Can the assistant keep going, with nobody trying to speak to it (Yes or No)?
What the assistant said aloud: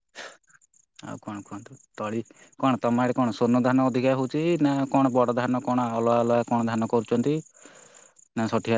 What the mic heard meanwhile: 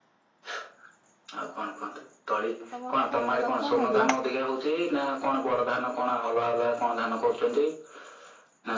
No